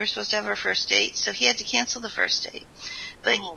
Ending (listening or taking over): listening